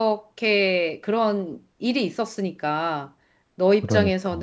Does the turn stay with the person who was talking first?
Yes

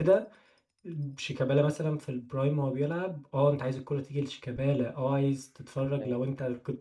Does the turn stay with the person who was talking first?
Yes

